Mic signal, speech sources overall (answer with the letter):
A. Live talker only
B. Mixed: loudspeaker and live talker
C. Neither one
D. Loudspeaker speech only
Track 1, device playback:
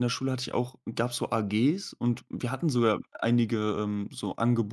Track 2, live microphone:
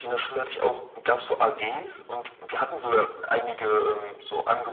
D